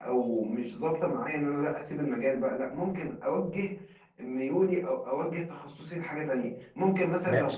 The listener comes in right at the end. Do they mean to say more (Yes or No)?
Yes